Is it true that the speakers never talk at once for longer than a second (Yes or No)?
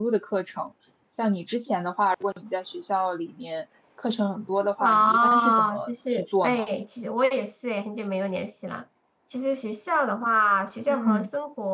No